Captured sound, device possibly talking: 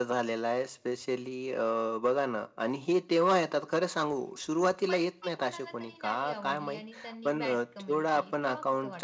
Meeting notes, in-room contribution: present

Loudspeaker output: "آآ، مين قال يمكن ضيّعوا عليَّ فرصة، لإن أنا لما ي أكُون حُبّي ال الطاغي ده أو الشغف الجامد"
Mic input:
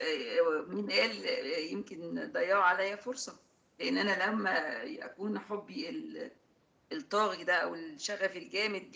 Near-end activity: none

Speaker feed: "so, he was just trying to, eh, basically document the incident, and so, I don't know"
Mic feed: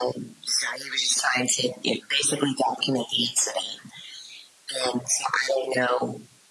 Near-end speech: none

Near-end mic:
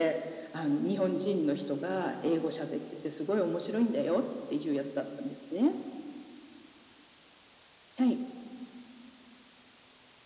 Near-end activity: none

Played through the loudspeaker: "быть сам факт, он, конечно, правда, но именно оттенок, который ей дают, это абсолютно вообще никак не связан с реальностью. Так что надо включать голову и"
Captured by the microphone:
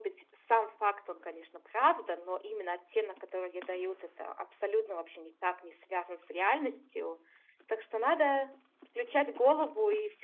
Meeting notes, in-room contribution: none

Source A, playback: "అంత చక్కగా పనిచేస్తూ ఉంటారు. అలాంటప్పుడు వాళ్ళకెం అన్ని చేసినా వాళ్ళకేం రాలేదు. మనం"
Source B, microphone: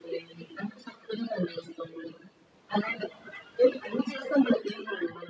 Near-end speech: none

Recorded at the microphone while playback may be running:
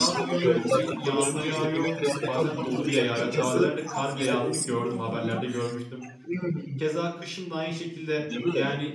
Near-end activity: present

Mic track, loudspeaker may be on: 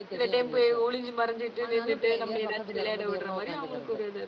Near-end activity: present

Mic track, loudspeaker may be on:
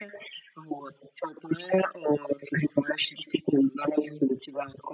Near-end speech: none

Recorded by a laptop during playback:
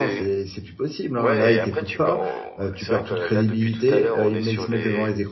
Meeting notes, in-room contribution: present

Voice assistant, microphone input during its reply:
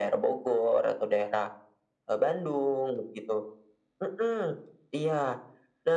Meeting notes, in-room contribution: none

